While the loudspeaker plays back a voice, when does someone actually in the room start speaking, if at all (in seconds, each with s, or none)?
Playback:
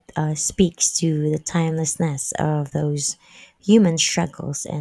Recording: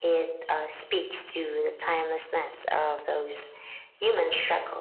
none